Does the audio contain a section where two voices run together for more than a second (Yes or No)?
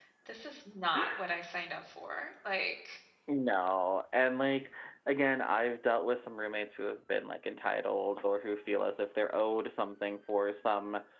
No